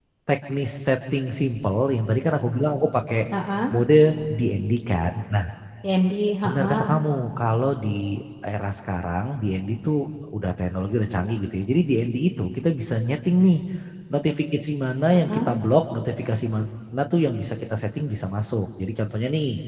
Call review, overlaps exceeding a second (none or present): none